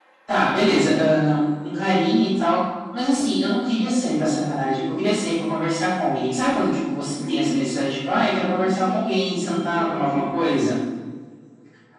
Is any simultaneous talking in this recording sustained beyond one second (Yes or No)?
Yes